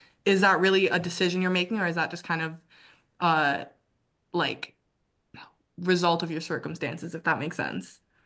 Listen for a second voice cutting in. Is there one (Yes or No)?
No